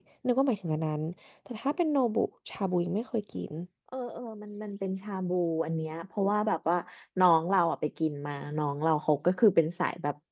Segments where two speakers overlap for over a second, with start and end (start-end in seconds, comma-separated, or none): none